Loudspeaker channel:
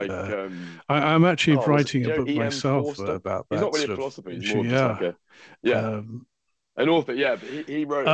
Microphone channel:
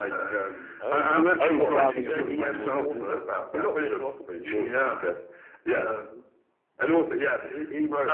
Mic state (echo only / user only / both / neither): both